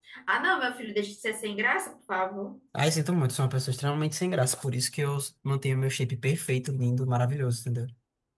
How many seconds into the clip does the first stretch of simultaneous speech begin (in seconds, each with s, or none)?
none